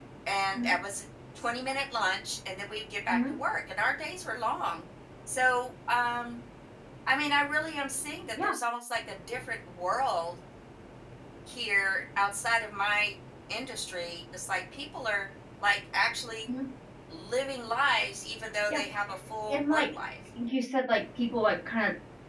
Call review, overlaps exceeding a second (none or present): none